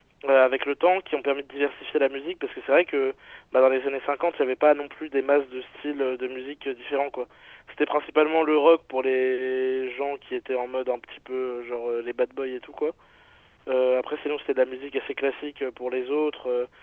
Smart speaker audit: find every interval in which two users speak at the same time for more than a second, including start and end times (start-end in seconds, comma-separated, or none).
none